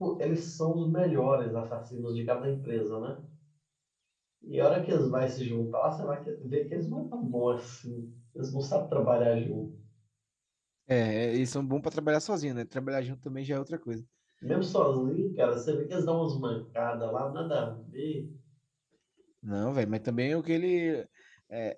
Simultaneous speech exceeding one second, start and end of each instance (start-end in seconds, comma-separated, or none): none